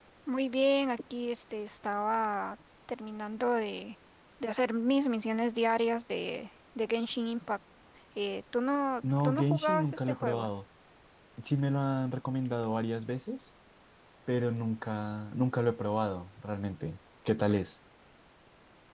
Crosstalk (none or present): present